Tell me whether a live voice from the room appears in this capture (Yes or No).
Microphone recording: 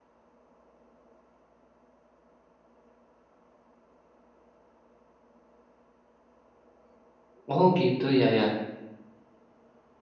Yes